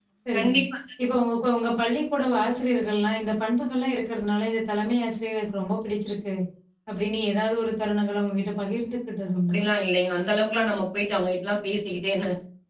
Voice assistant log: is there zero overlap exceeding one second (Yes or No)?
Yes